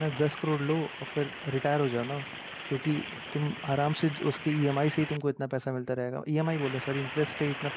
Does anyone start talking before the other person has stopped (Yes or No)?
No